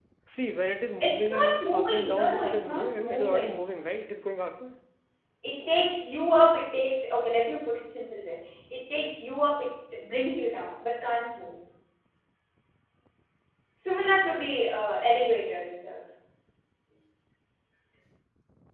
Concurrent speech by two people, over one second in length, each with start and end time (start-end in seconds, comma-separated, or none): 1.0-3.5